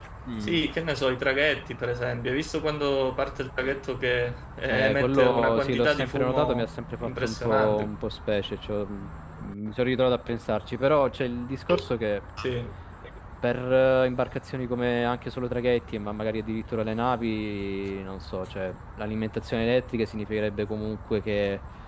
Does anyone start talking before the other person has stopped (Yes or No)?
Yes